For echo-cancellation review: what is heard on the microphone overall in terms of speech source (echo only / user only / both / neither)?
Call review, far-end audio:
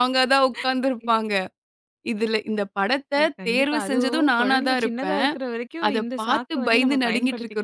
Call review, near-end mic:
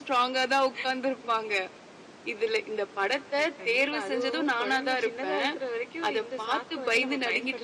echo only